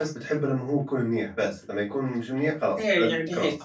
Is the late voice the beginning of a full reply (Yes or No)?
Yes